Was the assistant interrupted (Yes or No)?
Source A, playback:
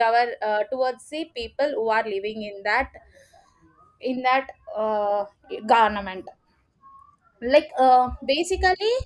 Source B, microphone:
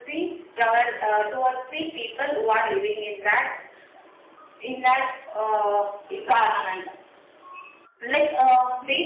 No